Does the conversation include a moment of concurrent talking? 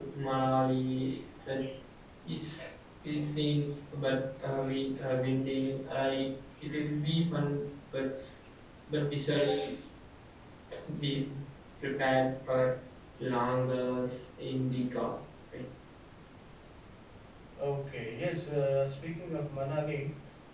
No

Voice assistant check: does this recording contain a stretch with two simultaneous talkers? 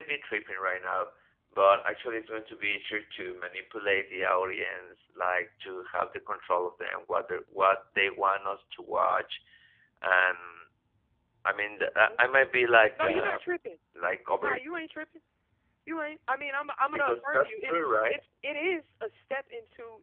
Yes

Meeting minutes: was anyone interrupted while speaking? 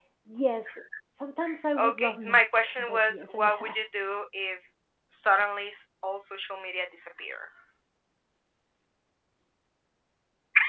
Yes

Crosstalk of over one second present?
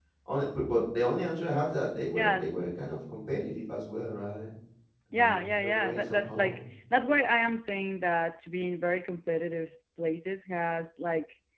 Yes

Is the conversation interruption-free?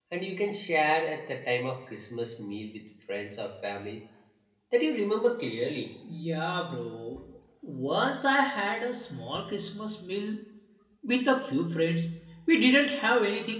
Yes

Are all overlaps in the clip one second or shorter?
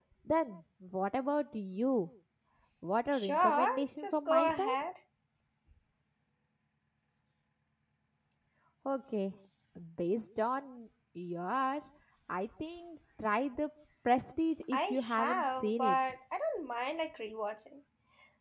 No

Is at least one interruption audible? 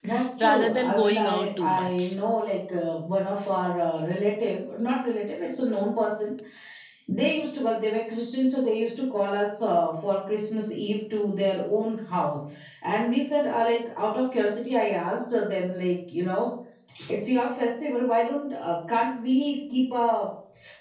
Yes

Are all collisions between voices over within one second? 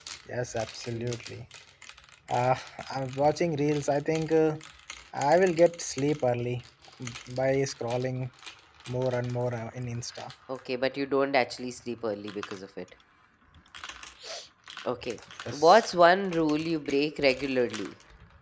Yes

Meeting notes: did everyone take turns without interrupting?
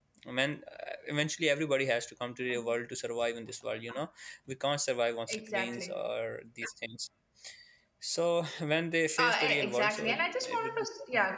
No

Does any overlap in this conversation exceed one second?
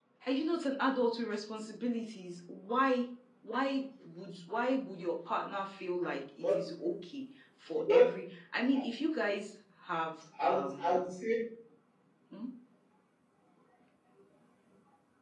No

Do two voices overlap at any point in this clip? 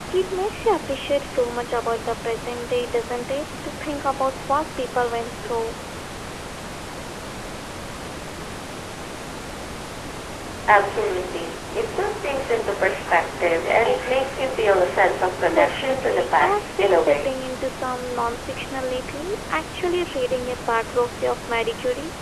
Yes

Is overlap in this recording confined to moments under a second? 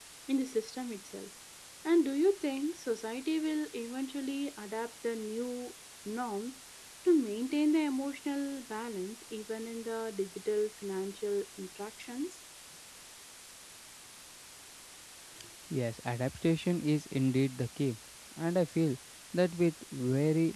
Yes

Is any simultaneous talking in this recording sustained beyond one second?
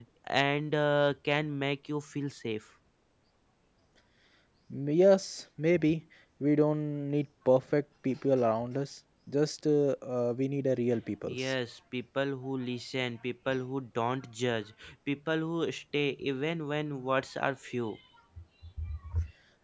No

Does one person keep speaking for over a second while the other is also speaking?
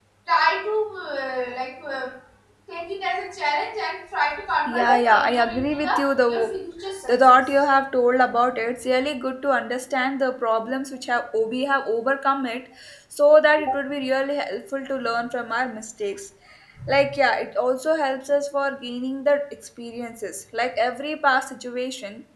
Yes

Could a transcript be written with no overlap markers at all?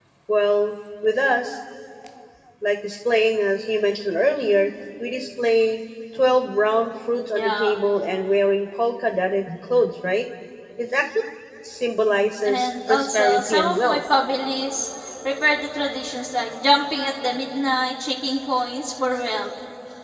No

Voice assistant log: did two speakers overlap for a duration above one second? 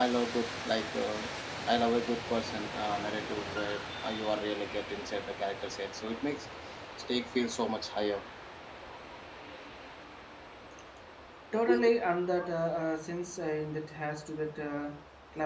No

